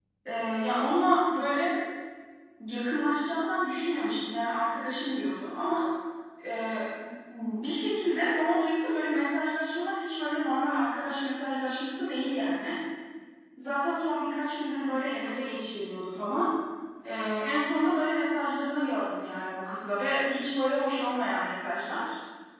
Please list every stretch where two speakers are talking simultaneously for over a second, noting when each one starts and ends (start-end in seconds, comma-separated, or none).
none